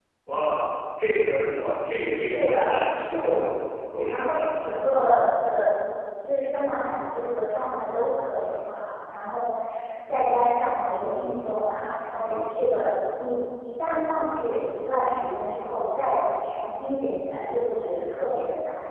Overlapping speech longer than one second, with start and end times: 2.1-3.4

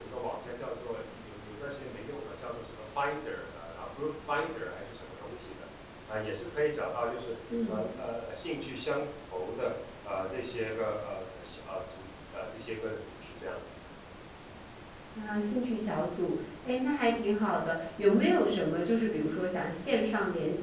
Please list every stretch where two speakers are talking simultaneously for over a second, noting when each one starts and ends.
none

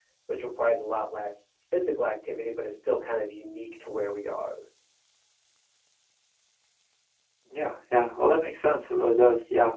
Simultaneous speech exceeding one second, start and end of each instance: none

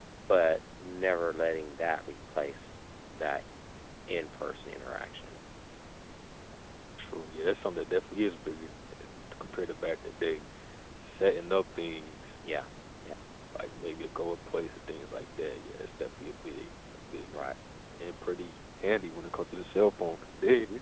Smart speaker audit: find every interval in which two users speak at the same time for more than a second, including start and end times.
none

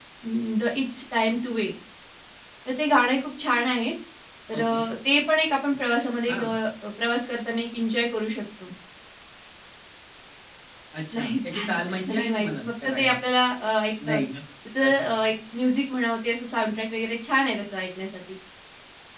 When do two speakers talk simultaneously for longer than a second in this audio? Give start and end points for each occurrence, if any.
11.1-13.1

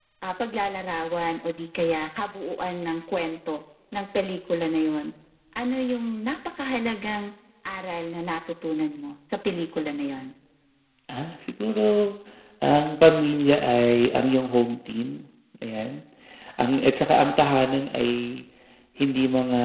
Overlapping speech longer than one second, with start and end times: none

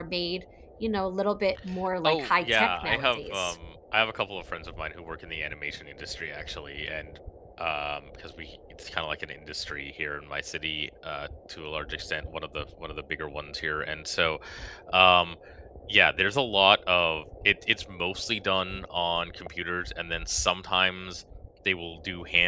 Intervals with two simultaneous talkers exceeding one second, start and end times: 2.0-3.5

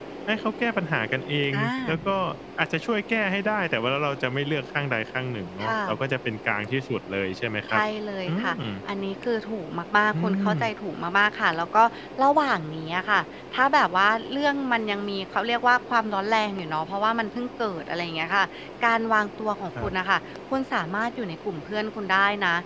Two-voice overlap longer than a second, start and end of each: none

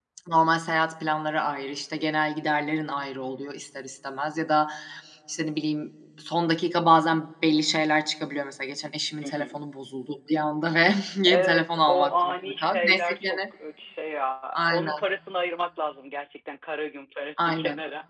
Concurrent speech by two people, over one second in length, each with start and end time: 11.3-13.4

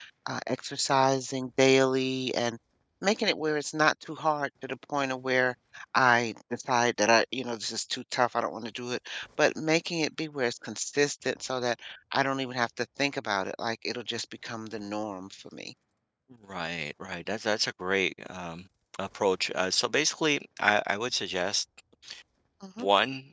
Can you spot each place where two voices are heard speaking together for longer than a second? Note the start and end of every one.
none

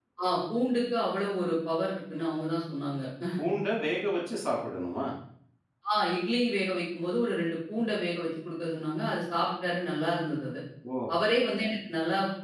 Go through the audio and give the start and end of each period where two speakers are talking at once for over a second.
none

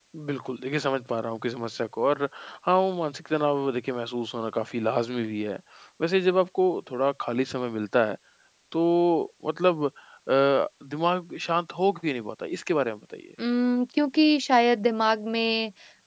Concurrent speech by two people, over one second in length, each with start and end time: none

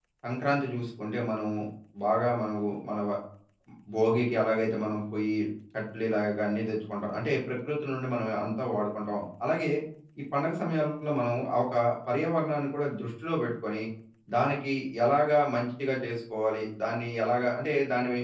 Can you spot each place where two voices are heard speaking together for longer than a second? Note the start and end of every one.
none

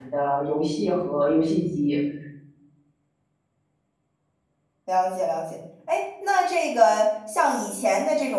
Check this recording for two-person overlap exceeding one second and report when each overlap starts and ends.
none

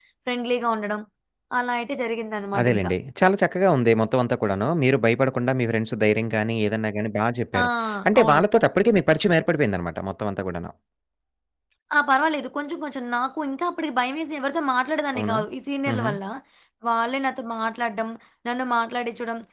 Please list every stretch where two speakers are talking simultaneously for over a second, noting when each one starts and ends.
none

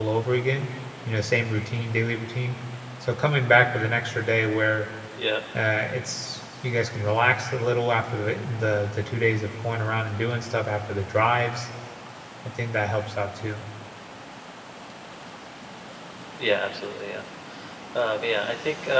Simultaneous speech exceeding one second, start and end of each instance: none

